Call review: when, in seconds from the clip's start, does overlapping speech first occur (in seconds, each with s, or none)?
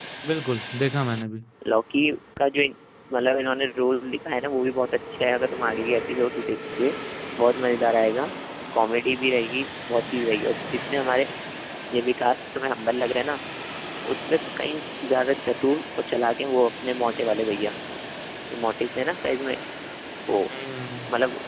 none